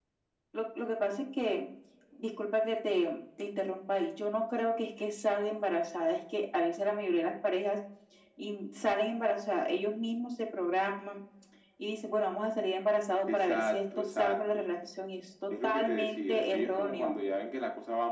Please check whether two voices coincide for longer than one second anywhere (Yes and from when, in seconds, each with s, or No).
Yes, from 13.3 s